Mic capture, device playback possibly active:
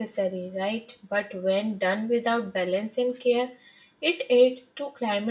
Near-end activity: present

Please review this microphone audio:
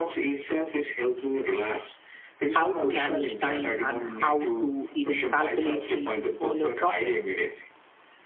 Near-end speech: present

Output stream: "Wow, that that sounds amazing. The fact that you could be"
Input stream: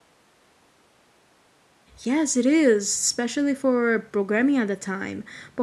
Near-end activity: present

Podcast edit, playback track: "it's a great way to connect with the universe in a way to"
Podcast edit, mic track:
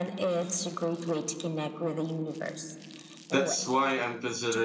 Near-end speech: present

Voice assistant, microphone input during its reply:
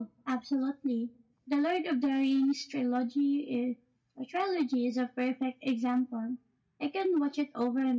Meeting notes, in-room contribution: present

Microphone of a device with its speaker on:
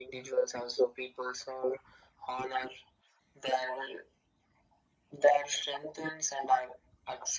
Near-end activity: none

